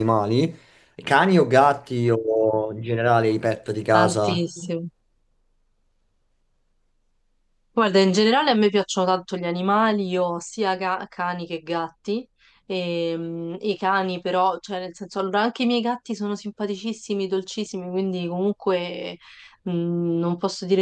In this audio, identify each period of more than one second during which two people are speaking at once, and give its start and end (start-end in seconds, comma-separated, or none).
none